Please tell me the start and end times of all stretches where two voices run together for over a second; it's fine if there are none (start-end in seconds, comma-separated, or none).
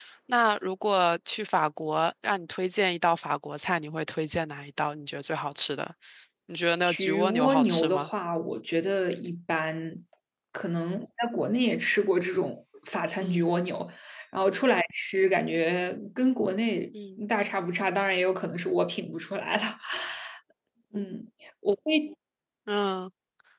6.9-8.1